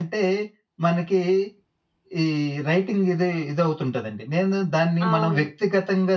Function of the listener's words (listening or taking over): listening